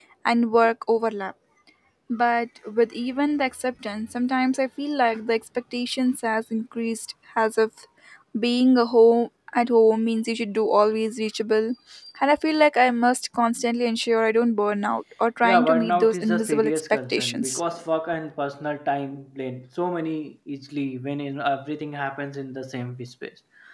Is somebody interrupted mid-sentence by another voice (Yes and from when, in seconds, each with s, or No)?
Yes, from 15.4 s